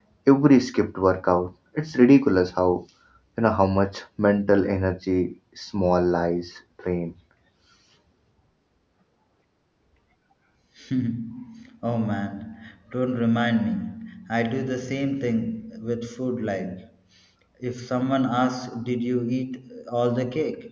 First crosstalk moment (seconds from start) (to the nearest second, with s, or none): none